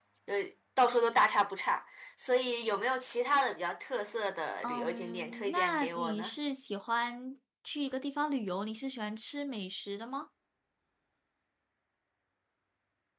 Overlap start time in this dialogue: 4.6 s

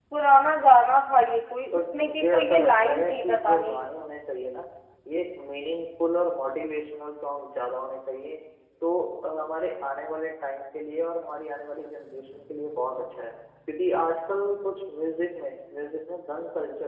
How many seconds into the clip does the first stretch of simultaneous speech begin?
1.7 s

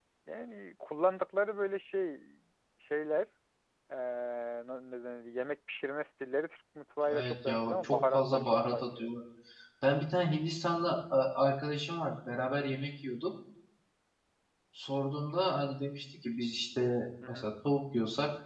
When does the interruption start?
7.1 s

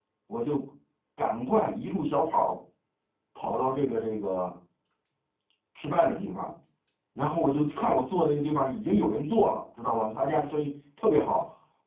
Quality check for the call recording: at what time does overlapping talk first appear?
none

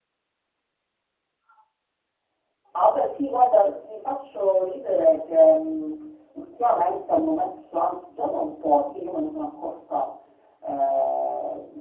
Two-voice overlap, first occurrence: none

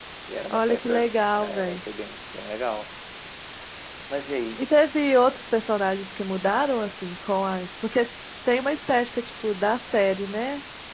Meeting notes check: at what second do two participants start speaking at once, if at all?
0.5 s

